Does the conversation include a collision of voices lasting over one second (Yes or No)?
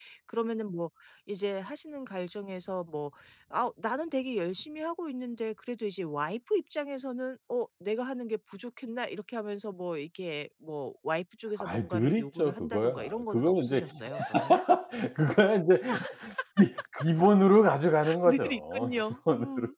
Yes